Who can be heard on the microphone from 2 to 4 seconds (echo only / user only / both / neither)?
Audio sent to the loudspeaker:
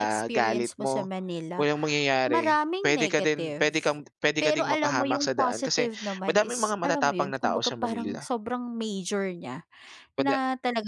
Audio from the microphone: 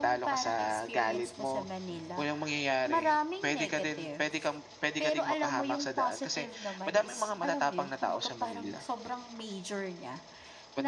echo only